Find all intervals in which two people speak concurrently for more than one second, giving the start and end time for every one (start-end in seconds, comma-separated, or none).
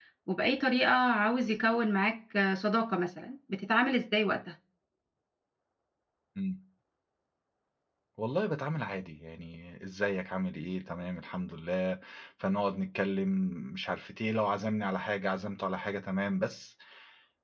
none